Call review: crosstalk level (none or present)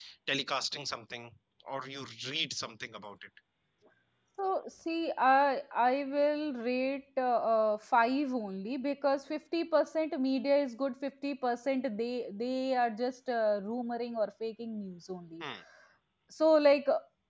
none